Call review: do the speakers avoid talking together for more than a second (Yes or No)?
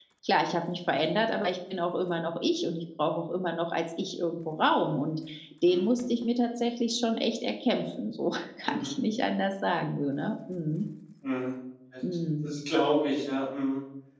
Yes